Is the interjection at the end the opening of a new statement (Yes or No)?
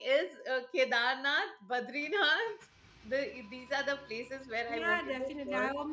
Yes